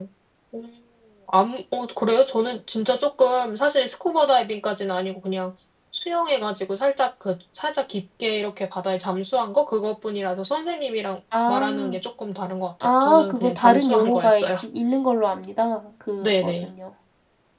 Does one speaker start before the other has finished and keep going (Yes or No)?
Yes